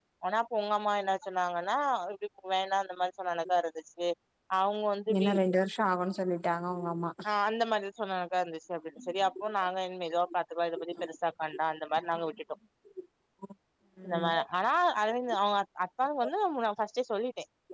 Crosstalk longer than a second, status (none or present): none